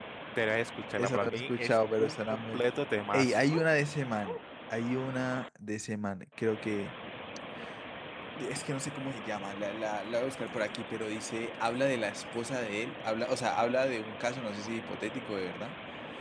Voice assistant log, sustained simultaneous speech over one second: present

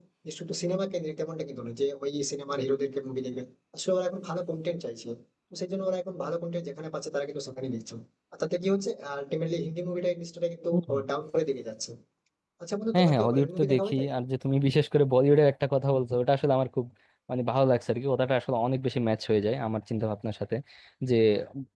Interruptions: present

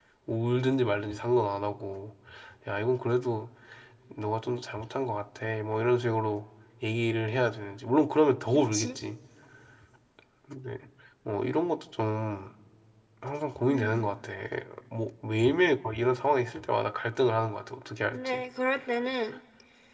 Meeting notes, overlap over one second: none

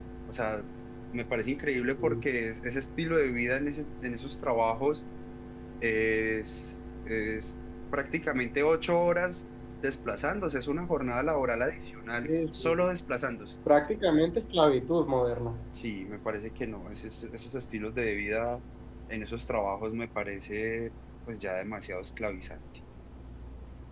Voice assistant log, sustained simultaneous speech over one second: none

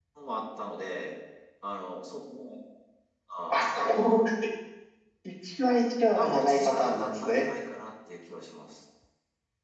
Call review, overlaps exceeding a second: present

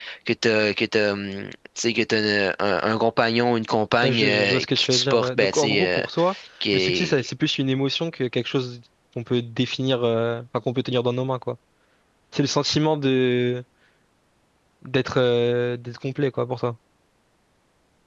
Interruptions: present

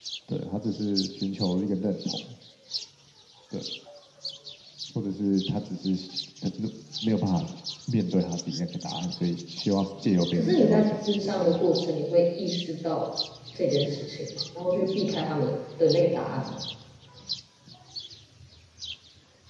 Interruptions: present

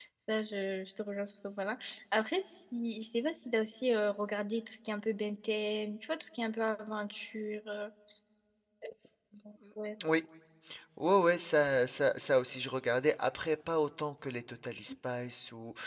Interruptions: none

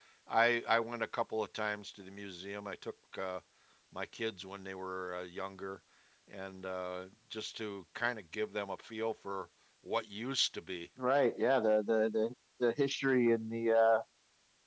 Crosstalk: none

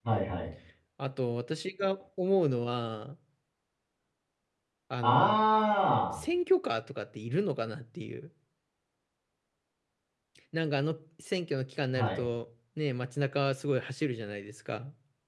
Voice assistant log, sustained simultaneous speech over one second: none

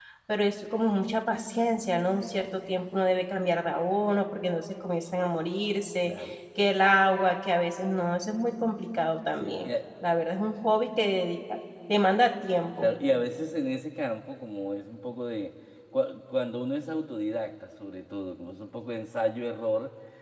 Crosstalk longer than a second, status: none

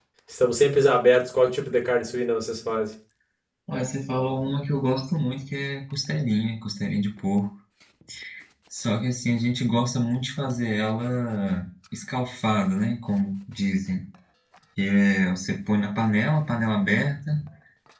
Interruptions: none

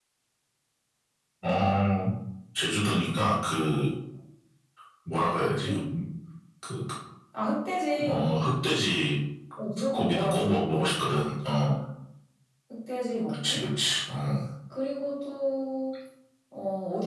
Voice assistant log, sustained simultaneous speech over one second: present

